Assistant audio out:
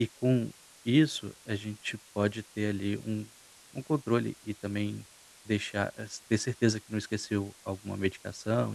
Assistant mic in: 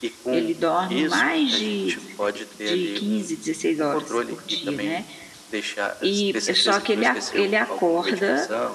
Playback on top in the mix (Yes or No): No